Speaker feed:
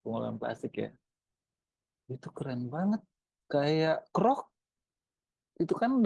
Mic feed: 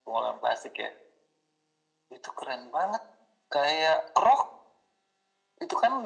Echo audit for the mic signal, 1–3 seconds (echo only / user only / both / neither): echo only